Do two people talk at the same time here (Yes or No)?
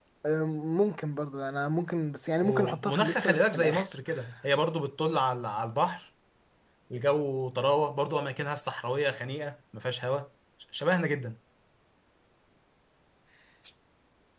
Yes